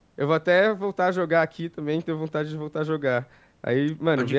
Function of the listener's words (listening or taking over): listening